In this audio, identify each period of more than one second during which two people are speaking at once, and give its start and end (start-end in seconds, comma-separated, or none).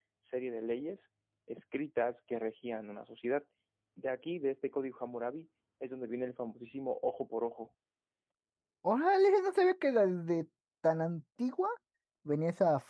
none